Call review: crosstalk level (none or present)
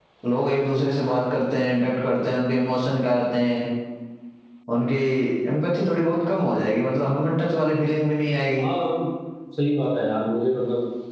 none